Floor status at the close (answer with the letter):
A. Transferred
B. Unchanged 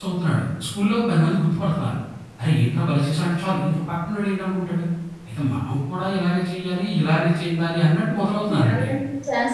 A